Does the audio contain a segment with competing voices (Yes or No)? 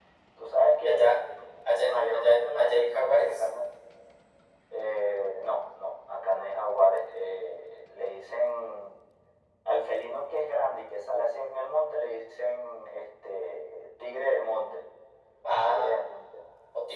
Yes